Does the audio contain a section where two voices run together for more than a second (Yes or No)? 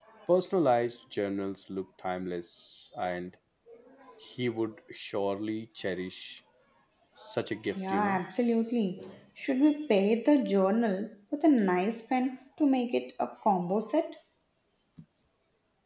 No